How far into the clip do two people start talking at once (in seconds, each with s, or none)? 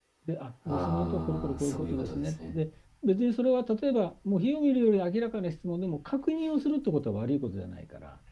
0.7 s